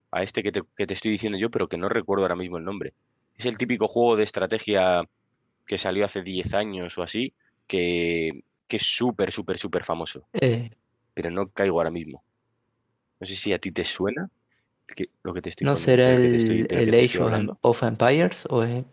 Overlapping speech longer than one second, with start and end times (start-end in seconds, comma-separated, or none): 15.6-17.5